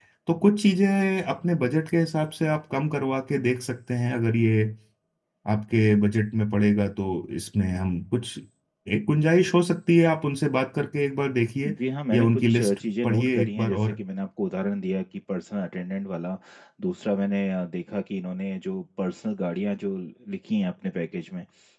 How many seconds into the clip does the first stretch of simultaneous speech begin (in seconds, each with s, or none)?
12.1 s